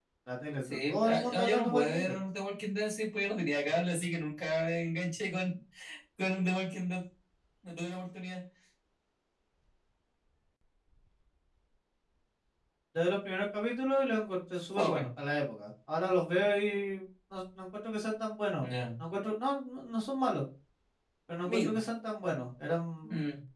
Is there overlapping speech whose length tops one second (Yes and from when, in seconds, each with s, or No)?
Yes, from 0.6 s